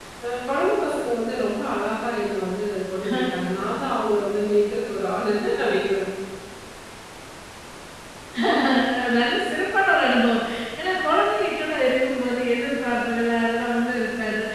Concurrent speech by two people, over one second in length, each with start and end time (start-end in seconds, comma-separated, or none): none